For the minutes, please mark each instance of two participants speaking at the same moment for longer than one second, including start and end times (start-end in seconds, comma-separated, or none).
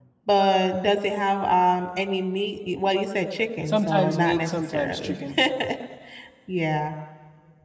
3.7-5.2